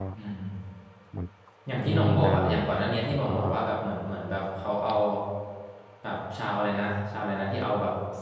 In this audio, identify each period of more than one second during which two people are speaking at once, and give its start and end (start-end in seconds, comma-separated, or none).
1.9-3.3